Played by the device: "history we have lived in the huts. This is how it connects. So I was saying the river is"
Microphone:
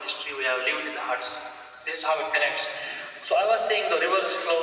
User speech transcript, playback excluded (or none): none